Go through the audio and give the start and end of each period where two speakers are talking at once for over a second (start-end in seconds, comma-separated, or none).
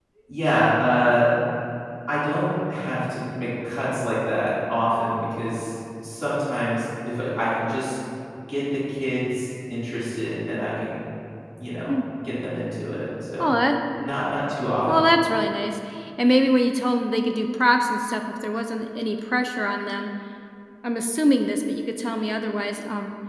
none